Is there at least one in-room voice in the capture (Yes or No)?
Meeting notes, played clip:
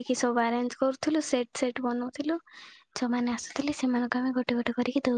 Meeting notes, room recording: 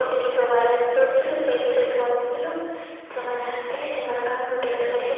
No